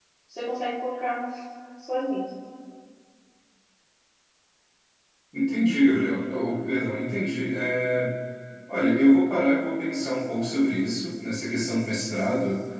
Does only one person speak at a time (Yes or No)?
Yes